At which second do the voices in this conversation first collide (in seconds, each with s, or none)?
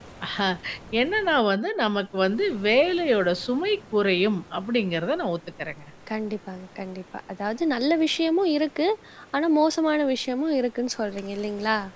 none